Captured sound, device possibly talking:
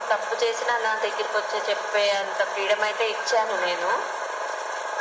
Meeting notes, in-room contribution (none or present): none